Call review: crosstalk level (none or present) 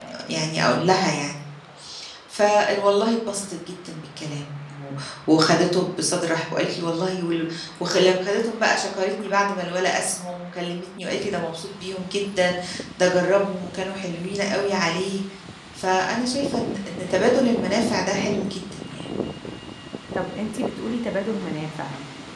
none